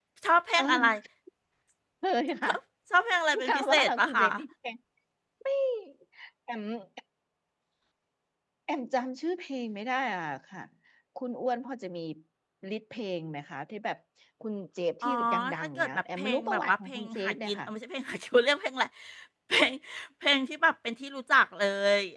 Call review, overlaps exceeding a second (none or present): present